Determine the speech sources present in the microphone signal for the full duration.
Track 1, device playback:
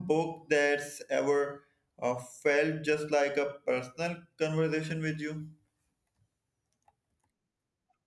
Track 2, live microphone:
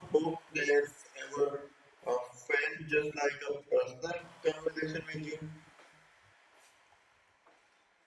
echo only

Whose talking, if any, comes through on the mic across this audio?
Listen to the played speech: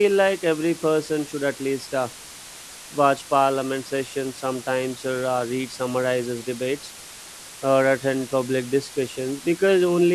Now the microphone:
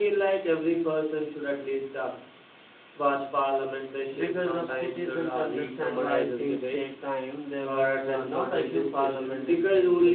both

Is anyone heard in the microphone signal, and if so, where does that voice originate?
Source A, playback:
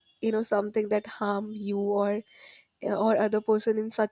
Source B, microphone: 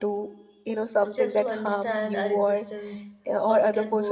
both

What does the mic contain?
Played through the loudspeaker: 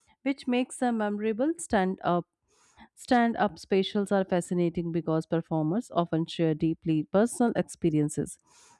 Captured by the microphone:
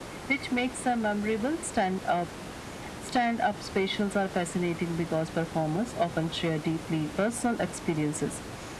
echo only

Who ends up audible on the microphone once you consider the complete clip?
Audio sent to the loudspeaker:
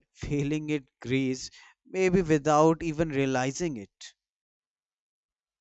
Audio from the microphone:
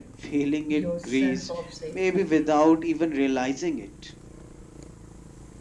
both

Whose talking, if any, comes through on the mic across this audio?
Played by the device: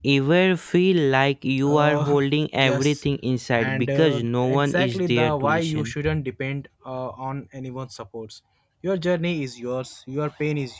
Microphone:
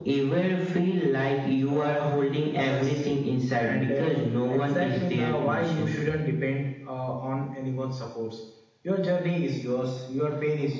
echo only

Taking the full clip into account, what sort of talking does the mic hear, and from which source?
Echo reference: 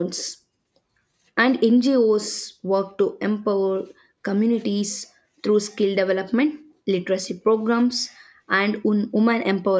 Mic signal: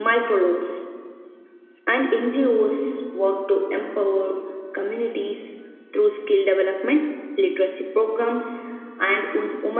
echo only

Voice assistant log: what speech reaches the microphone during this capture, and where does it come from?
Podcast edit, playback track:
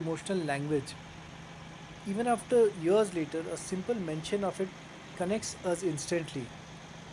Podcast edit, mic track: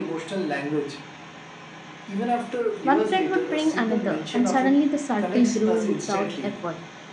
both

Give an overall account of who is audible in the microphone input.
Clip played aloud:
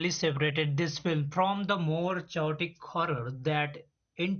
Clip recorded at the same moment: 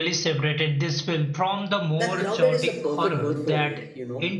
both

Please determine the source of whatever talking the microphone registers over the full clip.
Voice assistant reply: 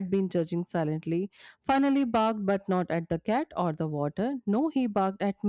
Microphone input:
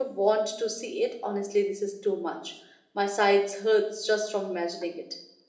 user only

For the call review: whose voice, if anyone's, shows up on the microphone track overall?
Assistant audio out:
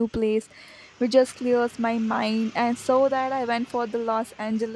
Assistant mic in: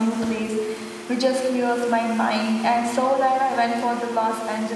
echo only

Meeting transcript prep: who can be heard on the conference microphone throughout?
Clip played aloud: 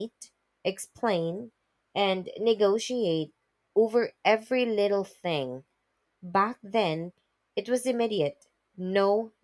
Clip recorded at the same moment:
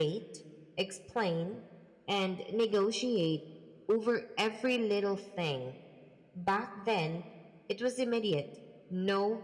echo only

